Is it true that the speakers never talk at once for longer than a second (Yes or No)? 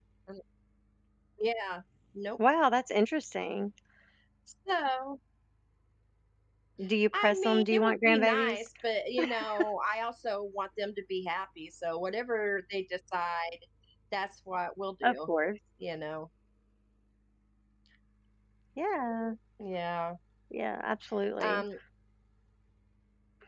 No